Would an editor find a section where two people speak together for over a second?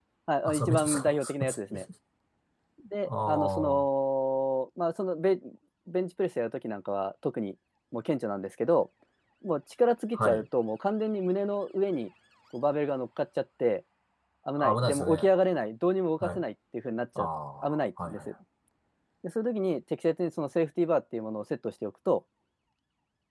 Yes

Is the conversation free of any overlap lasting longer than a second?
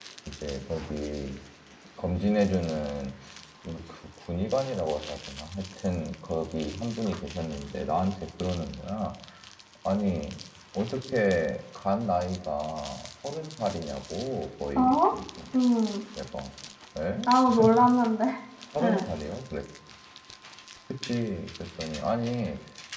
Yes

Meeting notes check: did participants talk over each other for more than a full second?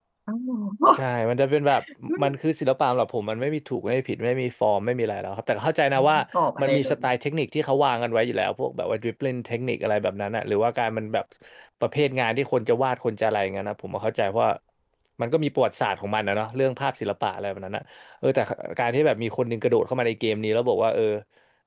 No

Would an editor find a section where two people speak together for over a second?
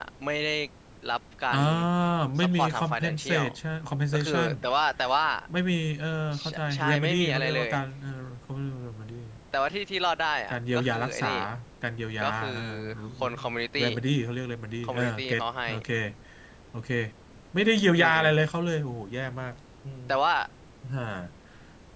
Yes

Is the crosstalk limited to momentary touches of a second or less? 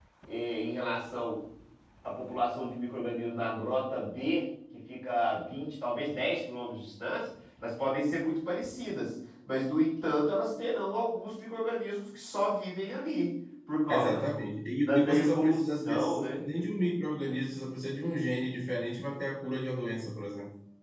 No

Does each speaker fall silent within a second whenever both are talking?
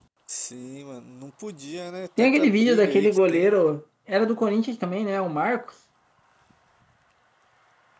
No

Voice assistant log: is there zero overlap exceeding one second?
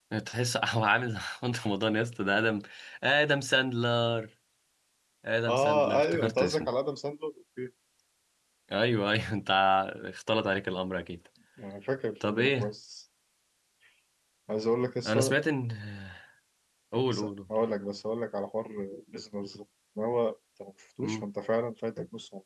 No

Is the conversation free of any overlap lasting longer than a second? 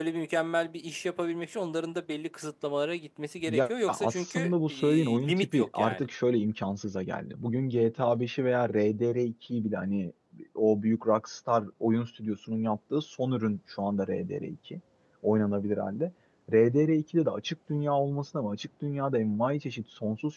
No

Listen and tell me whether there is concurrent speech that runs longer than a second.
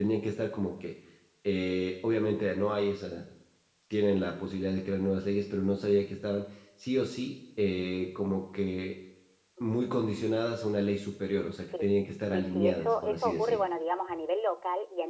Yes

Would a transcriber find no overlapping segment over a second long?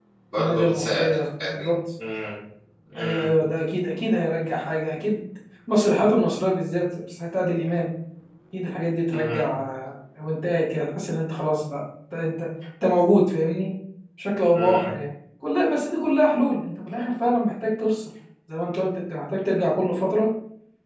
No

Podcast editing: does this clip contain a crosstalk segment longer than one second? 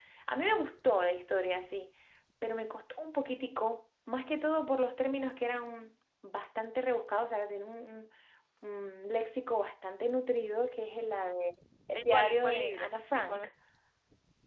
Yes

